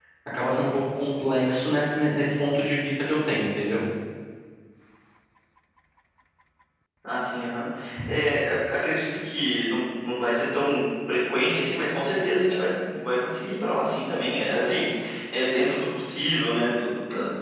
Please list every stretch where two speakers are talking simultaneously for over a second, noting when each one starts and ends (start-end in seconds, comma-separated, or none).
none